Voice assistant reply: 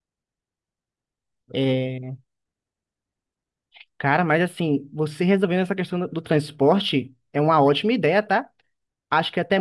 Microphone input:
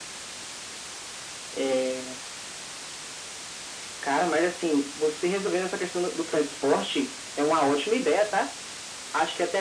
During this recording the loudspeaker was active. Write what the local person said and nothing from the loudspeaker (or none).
none